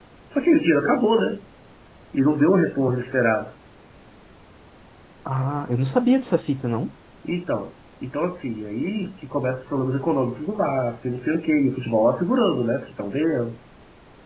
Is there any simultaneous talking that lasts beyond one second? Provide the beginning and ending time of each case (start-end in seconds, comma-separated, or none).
none